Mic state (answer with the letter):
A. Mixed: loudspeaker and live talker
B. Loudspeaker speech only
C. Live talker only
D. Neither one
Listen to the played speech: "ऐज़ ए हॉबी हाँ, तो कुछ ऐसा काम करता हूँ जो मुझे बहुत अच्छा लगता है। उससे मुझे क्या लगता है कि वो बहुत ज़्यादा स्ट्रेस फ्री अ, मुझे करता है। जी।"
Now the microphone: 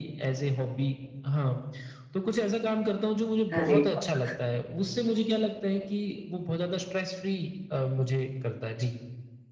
A